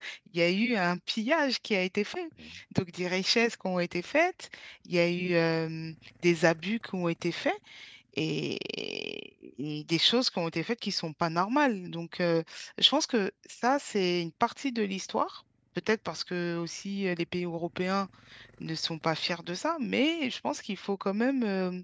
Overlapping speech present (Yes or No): No